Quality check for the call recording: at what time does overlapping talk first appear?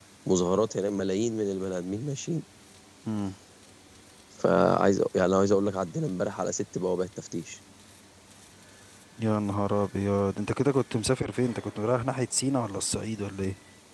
none

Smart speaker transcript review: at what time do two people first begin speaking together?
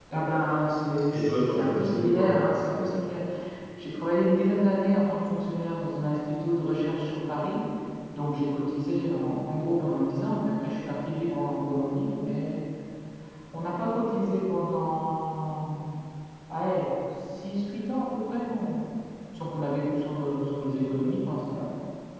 1.1 s

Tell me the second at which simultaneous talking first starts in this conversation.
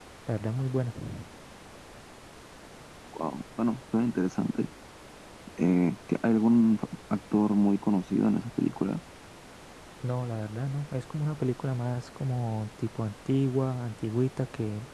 none

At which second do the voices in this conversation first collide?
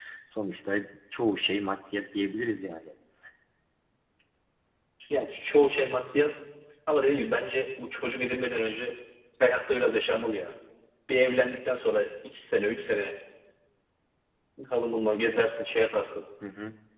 none

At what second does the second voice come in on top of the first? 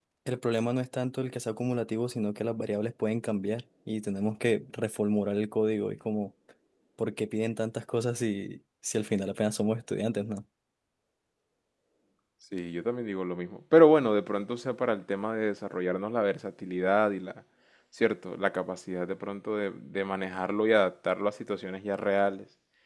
none

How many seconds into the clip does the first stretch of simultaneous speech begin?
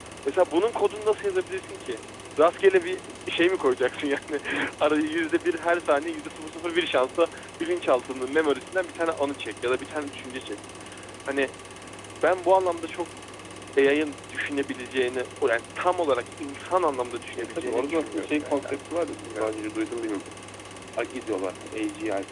17.4 s

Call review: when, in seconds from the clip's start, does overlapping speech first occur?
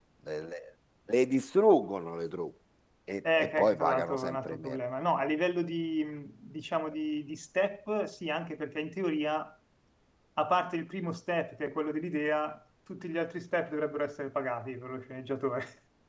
3.4 s

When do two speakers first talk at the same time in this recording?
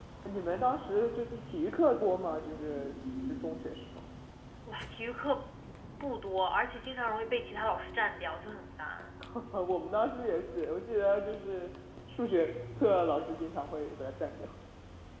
none

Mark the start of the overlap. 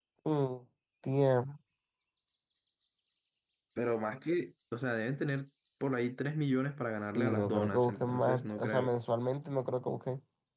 7.2 s

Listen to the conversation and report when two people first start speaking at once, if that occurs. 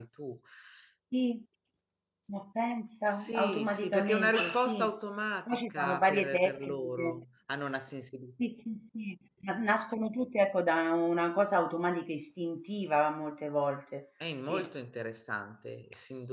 3.1 s

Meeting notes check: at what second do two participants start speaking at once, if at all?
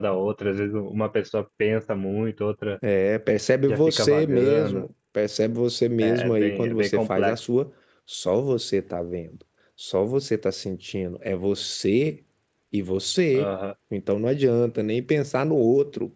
3.7 s

